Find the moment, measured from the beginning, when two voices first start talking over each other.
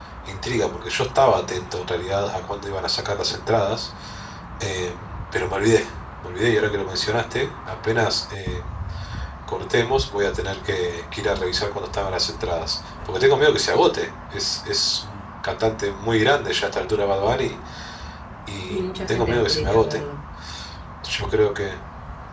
18.7 s

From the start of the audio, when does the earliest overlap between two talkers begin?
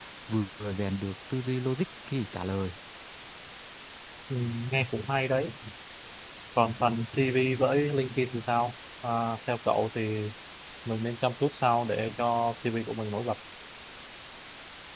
none

